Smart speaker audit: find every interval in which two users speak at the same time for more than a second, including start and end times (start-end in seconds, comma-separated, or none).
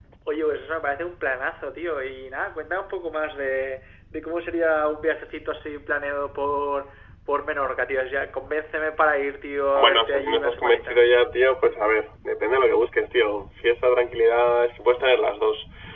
9.8-11.1